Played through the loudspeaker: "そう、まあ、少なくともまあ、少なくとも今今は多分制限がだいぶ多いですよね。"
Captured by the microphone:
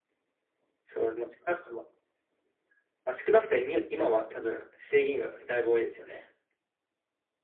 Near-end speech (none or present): none